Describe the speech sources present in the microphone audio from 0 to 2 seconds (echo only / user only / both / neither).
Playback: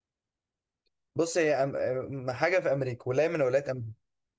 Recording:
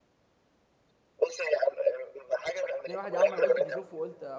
echo only